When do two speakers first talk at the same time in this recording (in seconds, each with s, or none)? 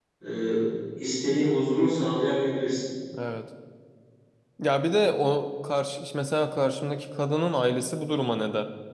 none